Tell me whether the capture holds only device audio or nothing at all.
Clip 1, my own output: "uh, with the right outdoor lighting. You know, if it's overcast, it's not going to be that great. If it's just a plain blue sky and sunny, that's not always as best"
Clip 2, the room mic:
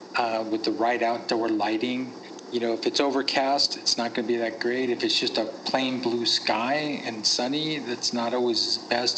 Yes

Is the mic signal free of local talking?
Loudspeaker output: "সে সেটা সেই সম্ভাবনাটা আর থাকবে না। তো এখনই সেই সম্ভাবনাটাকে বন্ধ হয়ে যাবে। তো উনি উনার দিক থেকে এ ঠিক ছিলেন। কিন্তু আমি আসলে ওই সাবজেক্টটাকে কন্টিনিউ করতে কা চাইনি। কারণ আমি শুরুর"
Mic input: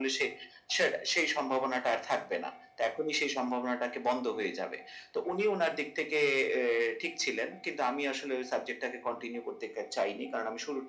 Yes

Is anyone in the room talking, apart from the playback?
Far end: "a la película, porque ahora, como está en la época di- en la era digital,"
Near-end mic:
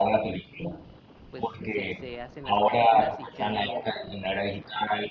Yes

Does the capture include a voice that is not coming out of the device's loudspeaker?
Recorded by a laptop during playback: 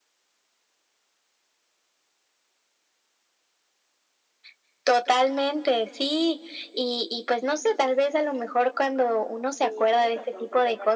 Yes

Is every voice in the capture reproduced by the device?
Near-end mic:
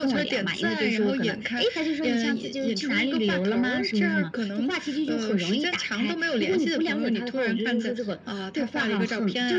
Yes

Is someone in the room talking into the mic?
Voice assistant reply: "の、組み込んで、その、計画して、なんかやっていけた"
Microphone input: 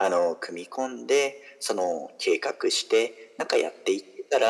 No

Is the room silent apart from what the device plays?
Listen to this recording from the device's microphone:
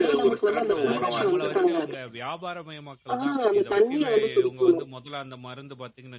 No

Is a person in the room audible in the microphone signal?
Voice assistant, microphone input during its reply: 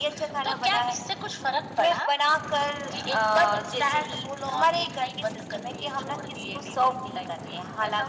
No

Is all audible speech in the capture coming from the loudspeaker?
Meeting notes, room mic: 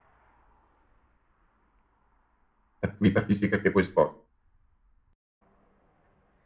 No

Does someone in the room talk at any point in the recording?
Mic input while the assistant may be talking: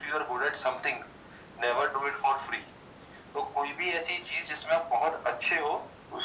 No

